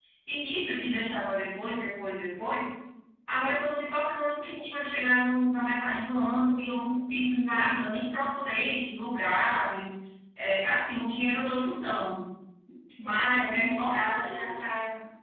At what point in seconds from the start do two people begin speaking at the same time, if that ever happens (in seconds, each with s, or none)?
13.0 s